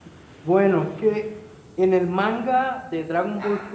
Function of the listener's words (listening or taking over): listening